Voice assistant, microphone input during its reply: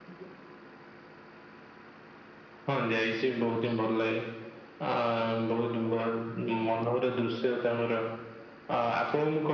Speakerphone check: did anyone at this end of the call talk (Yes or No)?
No